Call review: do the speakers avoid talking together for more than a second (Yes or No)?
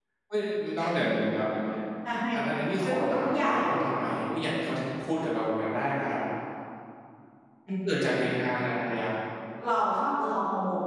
No